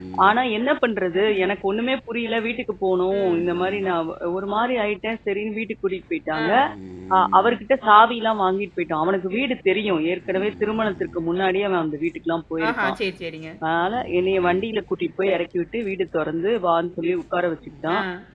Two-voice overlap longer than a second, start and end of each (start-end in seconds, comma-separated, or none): none